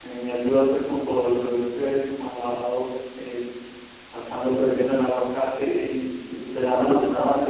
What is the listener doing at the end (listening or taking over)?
listening